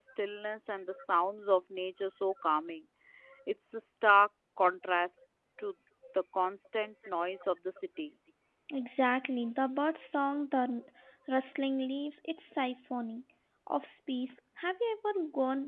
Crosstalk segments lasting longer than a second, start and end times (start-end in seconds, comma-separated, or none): none